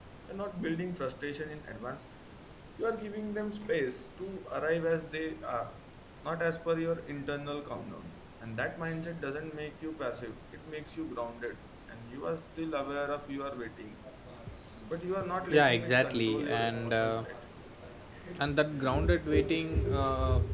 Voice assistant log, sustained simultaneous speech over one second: present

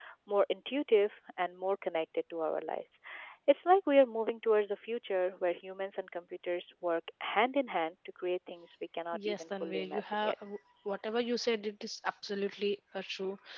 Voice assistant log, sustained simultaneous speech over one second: present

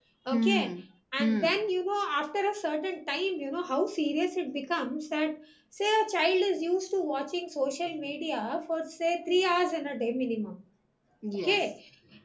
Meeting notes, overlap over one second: none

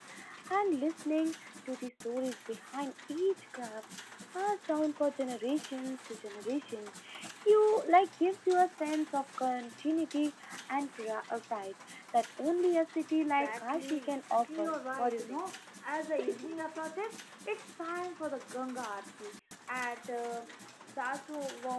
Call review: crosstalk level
present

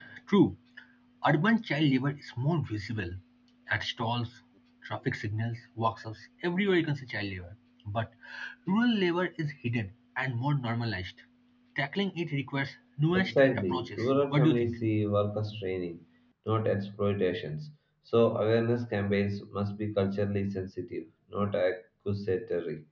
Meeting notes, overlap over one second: present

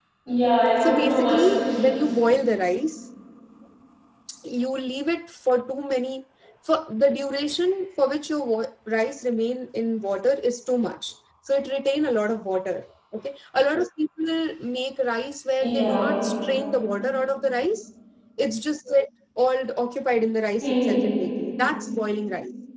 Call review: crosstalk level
present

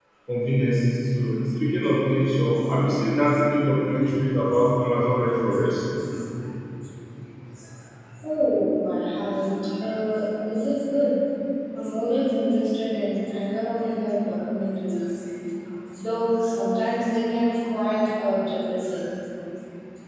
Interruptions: none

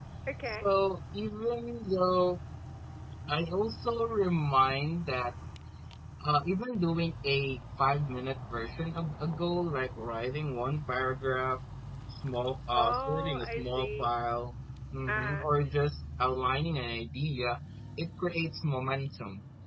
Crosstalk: present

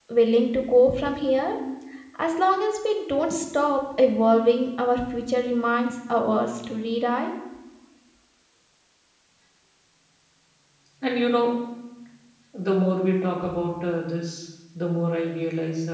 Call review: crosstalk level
none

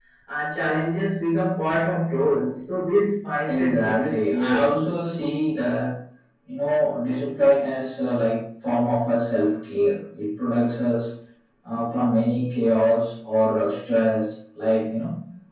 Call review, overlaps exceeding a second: present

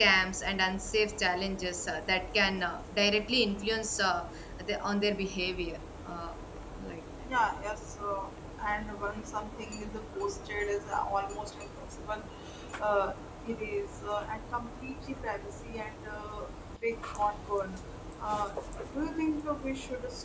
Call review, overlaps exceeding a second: none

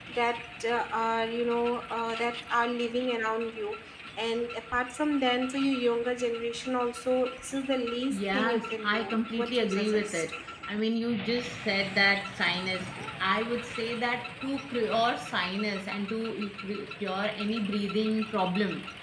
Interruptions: present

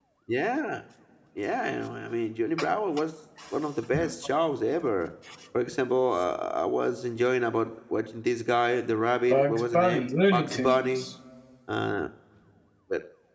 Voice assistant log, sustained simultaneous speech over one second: present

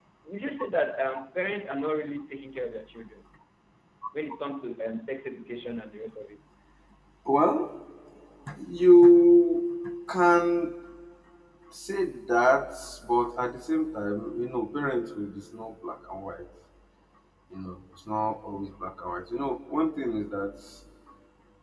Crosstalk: none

